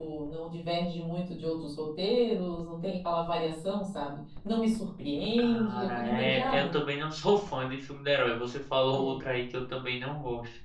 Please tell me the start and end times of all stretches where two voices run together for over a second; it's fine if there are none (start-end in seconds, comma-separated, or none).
5.4-6.7